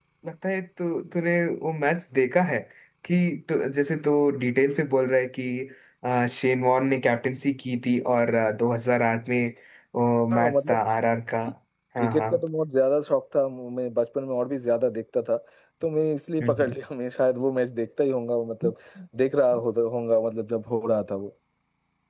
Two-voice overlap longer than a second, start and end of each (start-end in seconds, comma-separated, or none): none